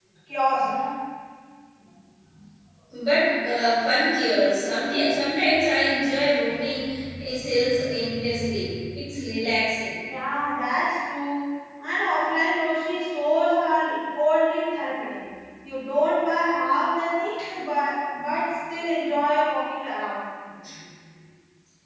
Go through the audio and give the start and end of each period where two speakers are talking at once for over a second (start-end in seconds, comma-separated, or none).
none